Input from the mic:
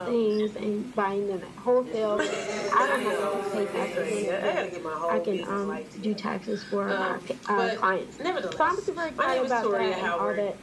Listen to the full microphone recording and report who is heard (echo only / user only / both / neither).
both